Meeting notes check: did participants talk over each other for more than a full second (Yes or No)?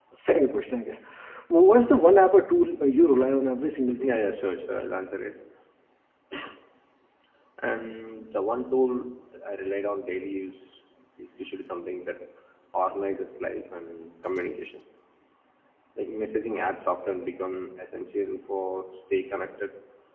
No